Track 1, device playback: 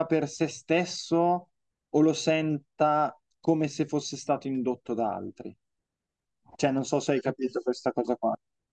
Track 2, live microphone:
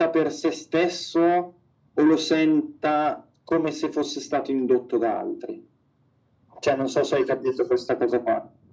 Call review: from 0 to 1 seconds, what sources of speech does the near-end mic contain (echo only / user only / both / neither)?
echo only